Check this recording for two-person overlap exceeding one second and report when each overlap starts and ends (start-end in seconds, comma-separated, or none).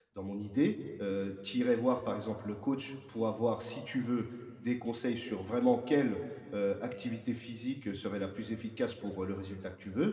none